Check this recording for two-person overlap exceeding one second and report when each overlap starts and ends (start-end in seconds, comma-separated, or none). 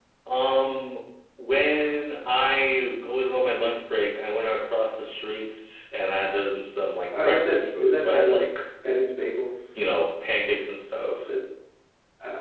7.2-8.5